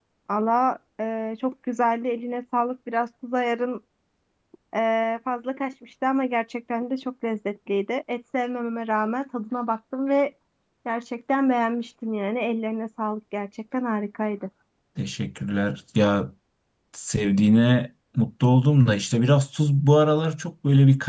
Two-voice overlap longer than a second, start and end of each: none

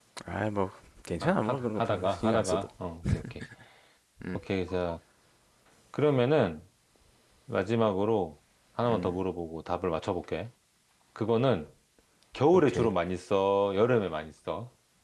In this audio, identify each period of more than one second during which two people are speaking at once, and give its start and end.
1.2-2.7

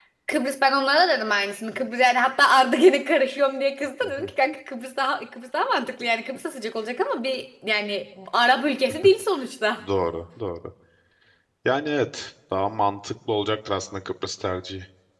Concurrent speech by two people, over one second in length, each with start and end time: none

